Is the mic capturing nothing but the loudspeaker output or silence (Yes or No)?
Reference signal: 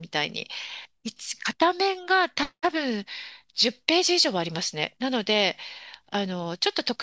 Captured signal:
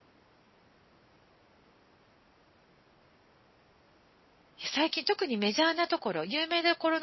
No